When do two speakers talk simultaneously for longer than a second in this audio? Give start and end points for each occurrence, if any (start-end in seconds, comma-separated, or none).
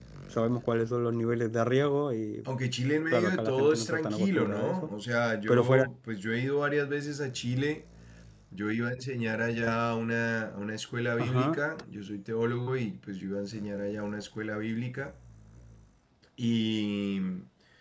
3.1-4.9